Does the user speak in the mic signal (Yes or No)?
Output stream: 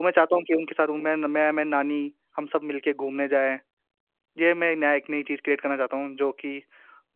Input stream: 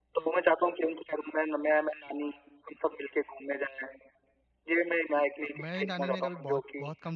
Yes